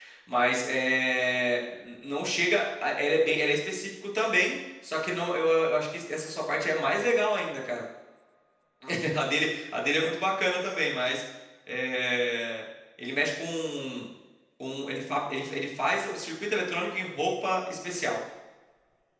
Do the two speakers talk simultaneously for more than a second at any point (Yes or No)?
No